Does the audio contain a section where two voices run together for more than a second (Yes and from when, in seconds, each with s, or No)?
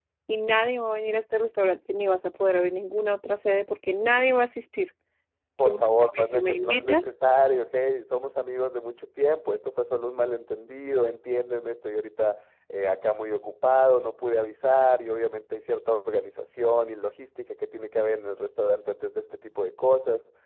Yes, from 5.6 s